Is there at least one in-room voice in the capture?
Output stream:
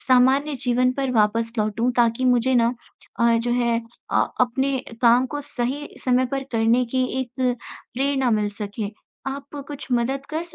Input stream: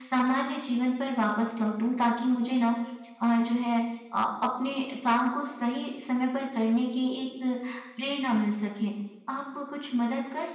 No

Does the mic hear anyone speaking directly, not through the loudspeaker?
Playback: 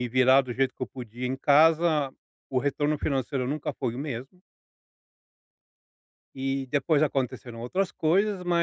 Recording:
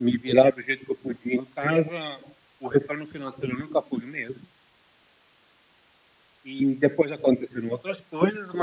No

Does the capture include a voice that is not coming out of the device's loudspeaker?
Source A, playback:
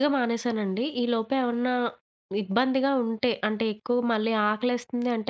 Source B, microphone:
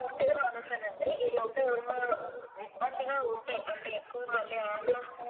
No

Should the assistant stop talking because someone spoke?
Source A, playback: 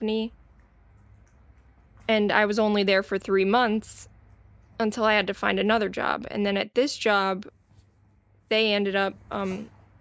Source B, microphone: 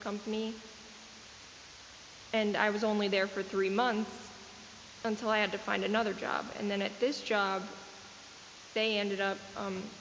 No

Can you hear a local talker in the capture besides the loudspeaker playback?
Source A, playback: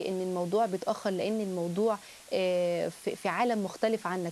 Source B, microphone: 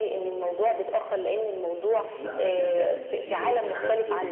Yes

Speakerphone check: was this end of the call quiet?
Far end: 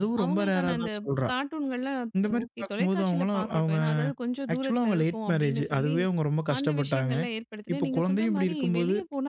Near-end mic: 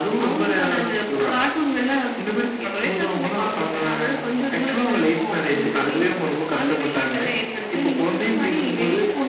Yes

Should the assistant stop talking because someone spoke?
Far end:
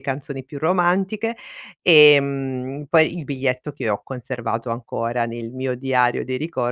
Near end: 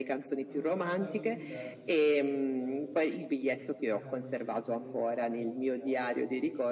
Yes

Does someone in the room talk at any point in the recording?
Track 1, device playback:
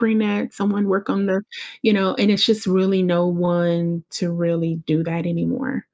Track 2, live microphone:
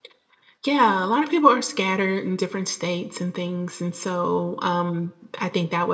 Yes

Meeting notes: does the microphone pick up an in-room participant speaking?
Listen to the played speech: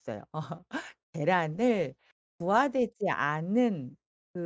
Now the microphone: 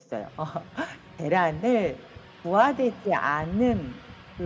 No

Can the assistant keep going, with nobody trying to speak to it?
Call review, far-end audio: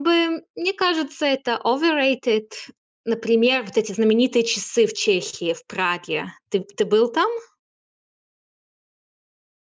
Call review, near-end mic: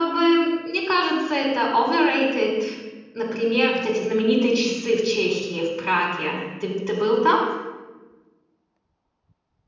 Yes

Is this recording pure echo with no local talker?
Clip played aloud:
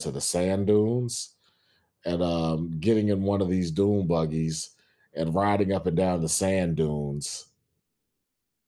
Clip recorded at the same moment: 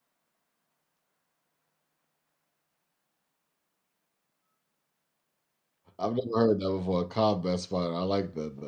No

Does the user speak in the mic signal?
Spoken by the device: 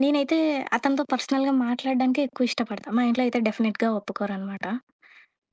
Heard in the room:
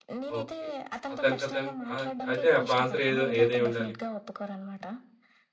Yes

